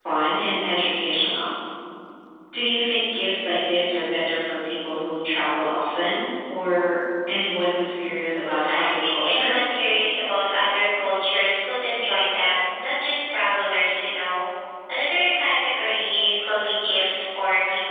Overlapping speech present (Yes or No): Yes